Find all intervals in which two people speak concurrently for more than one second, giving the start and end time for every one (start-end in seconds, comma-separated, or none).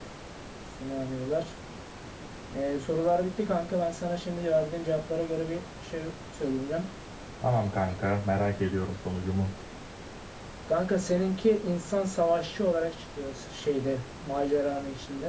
none